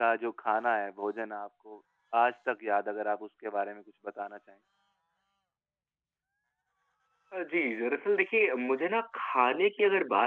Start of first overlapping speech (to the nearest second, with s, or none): none